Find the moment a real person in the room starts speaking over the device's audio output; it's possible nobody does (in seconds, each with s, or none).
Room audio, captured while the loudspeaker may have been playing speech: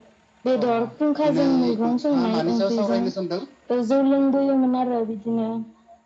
none